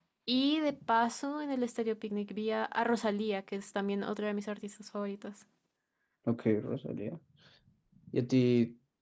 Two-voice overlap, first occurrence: none

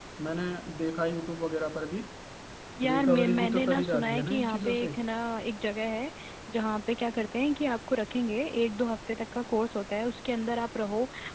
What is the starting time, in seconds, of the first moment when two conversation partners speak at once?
2.8 s

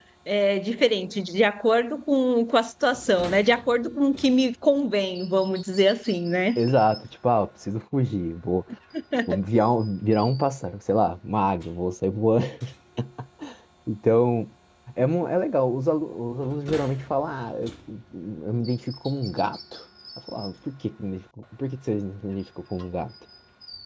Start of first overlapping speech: none

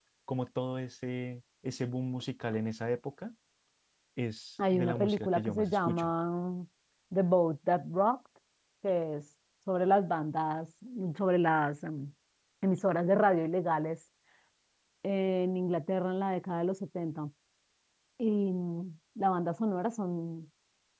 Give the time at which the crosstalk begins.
4.7 s

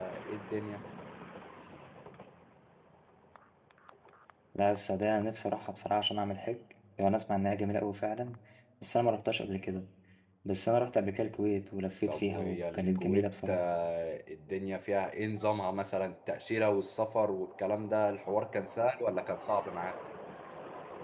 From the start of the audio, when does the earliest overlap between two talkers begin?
12.1 s

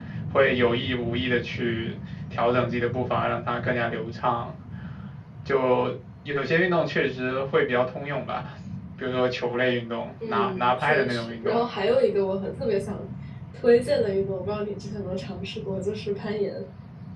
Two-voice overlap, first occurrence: 10.2 s

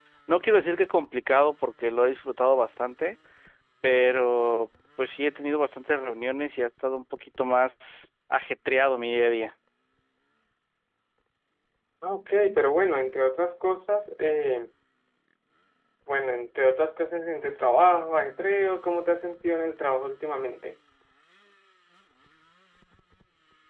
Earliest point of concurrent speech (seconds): none

